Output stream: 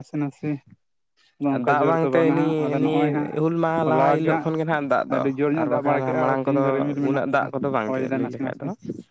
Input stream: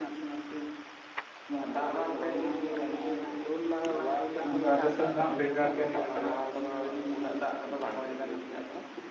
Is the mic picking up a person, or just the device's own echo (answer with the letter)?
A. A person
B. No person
A